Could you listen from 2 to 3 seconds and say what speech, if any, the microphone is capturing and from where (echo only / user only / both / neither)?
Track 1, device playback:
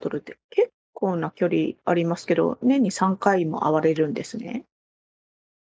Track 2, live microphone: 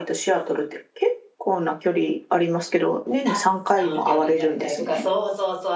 echo only